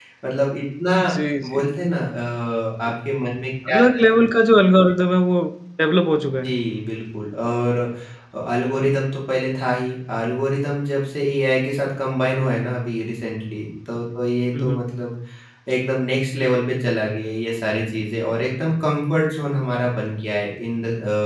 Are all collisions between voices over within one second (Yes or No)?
Yes